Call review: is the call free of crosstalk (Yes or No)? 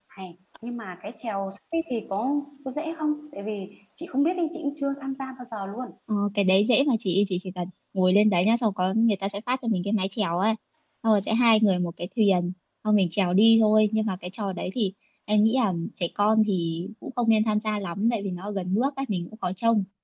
Yes